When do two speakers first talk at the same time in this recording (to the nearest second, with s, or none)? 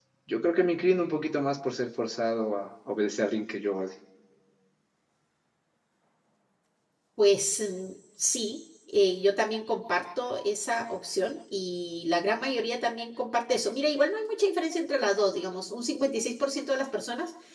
none